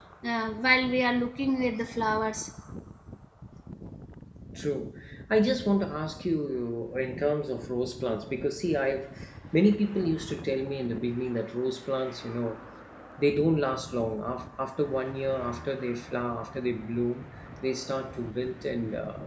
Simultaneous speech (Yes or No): No